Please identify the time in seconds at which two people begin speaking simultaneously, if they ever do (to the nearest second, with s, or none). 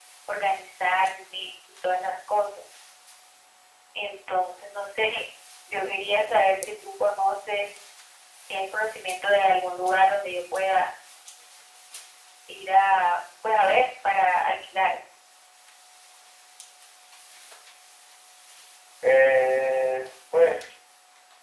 none